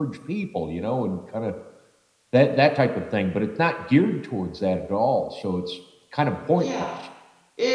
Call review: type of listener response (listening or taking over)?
taking over